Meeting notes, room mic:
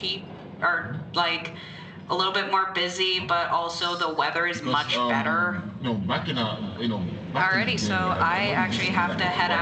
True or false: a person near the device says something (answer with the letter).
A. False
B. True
B